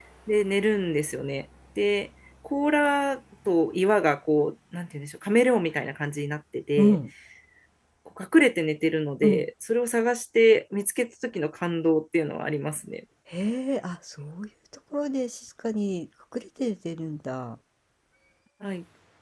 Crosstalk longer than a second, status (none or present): none